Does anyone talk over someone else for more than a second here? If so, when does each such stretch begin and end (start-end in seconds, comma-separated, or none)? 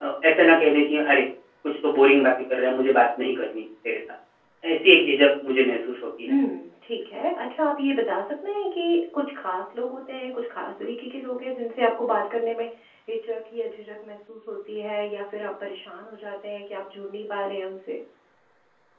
none